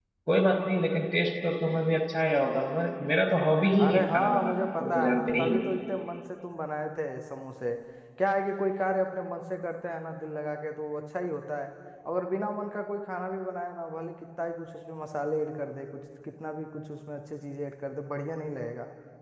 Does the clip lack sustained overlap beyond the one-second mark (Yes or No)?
No